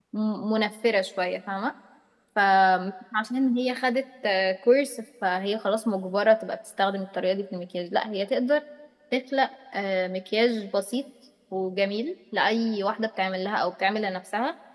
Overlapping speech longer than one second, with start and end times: none

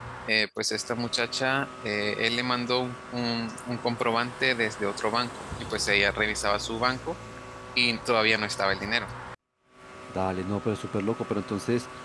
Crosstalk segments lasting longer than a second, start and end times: none

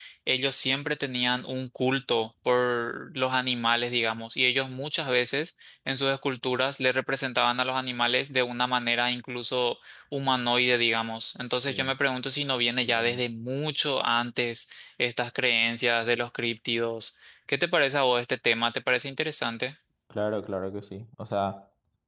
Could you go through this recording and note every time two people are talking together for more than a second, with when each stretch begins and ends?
none

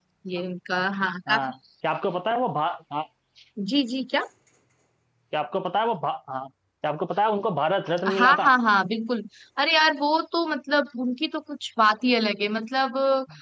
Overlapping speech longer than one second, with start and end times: none

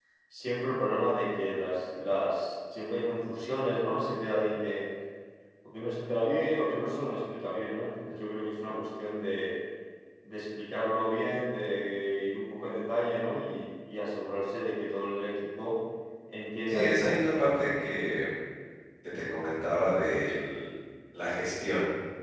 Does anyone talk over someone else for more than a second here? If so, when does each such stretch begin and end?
16.7-18.0

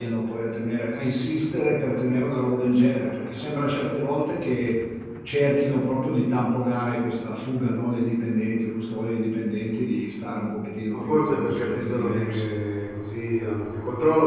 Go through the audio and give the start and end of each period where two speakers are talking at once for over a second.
10.9-12.4

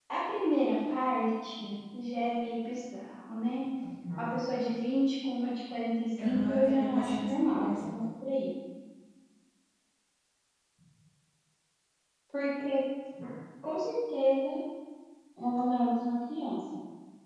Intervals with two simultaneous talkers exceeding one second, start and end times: 6.2-7.8

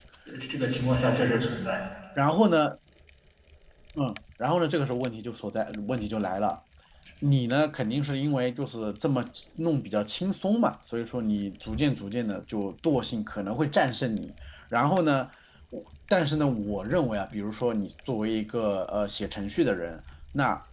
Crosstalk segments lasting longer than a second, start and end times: none

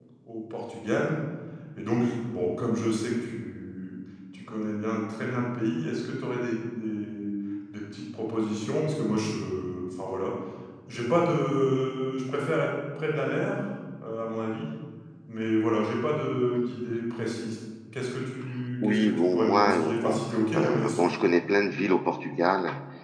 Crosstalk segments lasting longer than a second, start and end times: 18.8-21.1

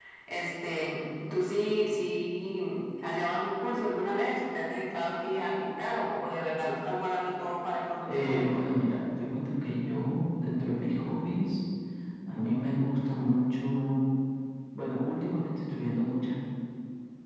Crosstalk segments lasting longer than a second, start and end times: none

